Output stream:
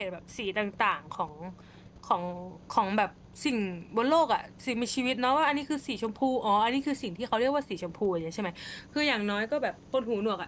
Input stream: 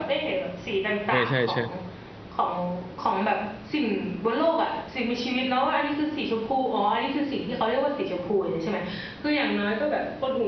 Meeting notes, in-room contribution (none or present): present